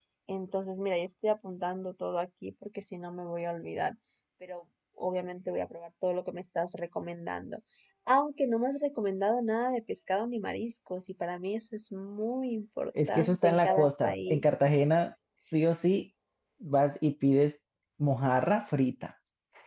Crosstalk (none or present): present